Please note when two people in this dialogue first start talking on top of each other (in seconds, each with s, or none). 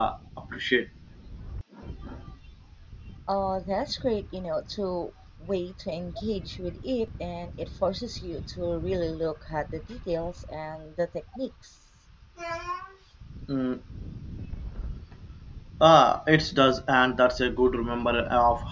none